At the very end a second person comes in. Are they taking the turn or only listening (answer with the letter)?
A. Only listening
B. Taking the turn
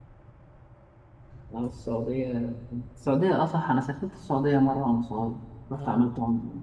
B